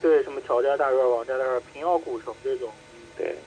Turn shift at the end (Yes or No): Yes